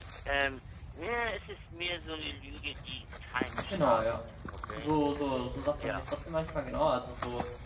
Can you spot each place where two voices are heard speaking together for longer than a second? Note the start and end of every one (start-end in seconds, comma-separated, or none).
none